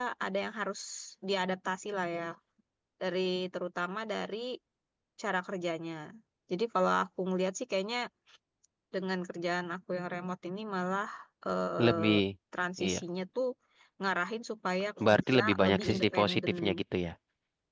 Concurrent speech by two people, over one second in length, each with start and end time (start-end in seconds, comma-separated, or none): 15.0-16.5